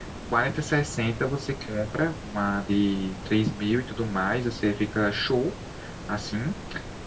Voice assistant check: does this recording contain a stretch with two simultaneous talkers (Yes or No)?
No